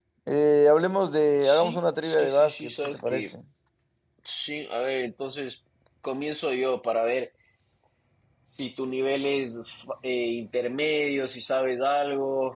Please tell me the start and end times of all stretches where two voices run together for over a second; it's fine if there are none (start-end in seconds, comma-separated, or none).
1.4-3.3